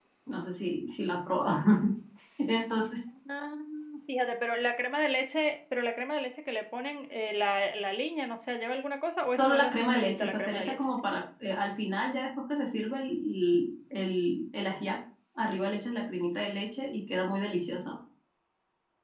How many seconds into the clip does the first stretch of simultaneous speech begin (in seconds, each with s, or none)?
9.4 s